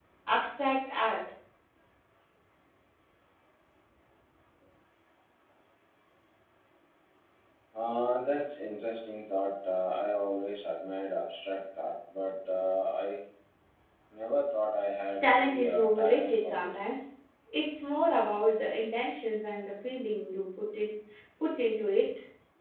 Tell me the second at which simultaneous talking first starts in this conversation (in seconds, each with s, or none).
15.2 s